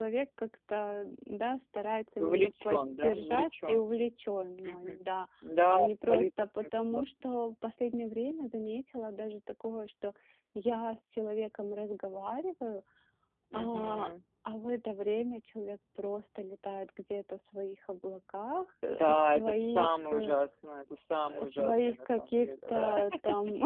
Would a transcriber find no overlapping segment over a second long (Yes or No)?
No